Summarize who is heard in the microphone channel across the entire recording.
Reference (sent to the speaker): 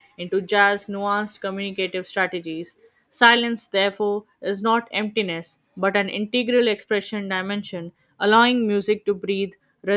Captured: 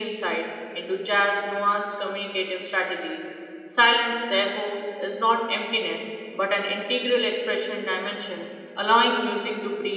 echo only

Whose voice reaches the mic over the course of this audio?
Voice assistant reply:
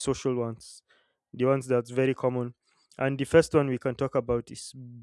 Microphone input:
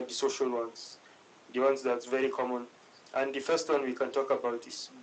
echo only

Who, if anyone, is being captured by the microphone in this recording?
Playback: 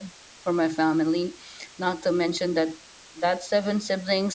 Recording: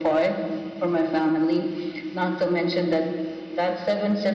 echo only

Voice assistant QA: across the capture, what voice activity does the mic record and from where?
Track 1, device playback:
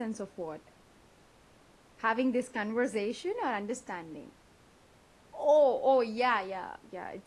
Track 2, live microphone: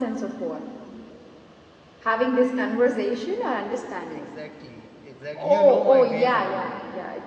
both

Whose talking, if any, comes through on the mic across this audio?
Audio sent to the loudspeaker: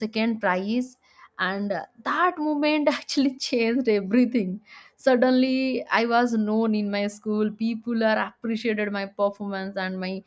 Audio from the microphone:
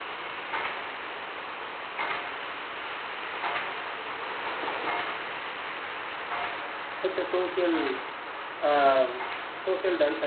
user only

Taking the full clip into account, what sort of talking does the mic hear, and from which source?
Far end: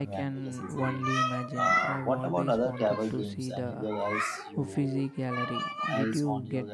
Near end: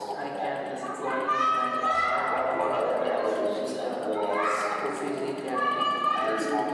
echo only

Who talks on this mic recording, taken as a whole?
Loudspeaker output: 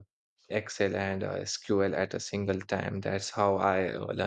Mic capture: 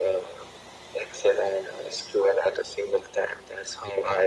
echo only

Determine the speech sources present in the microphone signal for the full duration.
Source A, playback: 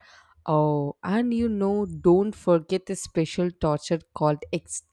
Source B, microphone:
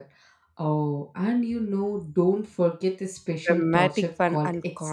both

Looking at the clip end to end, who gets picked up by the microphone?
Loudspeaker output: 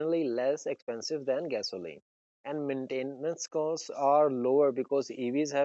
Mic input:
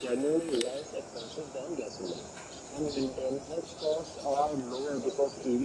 echo only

